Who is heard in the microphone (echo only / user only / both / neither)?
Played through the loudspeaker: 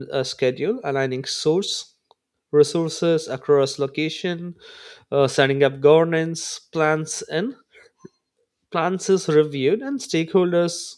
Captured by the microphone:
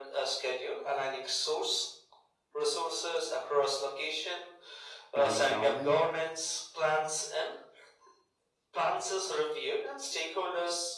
both